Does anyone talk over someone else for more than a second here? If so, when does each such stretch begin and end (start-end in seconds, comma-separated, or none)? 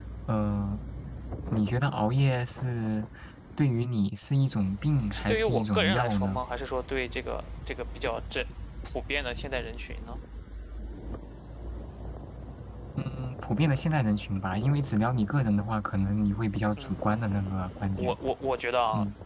5.1-6.4, 16.8-18.2